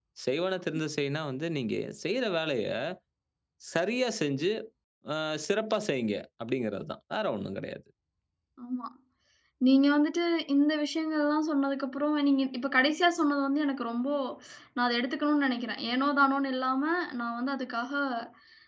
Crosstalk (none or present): none